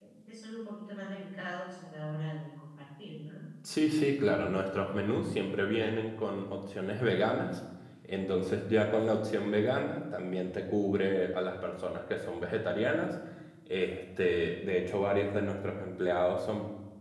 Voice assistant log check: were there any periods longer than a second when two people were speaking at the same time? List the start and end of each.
none

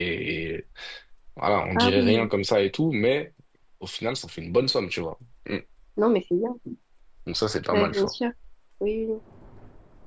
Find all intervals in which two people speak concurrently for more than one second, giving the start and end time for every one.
none

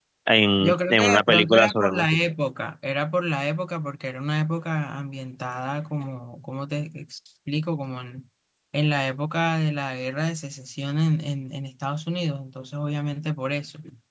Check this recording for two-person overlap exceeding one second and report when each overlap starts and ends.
0.6-2.2

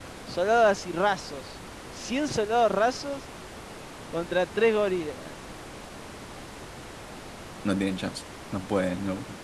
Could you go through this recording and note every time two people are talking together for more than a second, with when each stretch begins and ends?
none

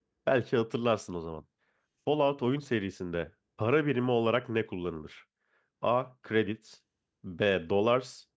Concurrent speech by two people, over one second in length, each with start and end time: none

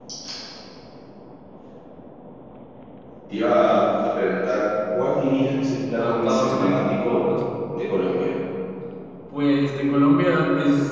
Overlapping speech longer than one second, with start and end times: 6.0-7.2

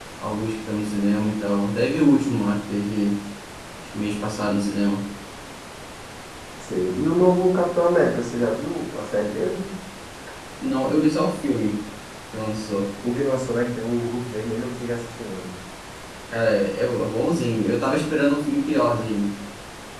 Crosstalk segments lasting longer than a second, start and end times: none

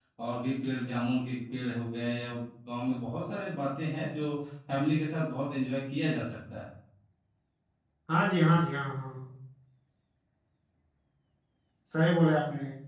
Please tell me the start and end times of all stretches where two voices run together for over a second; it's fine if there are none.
none

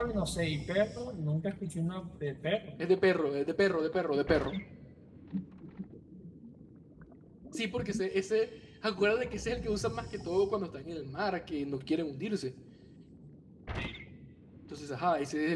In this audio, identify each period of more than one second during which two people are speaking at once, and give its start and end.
none

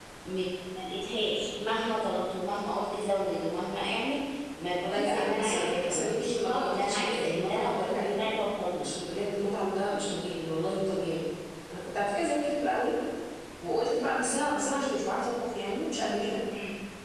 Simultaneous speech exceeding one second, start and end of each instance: 4.8-8.3

